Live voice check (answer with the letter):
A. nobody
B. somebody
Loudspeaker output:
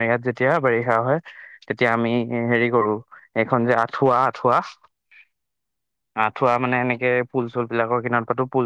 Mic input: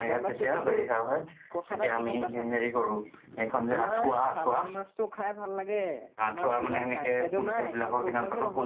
B